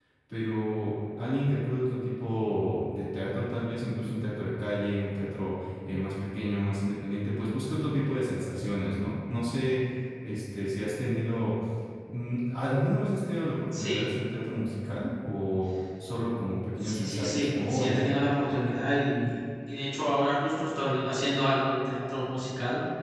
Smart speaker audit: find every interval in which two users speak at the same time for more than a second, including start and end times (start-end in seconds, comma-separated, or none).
16.8-18.1